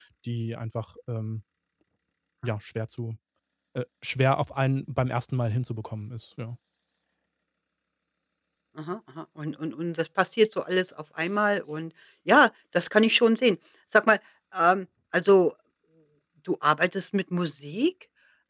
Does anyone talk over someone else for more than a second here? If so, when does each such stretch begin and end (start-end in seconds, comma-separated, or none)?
none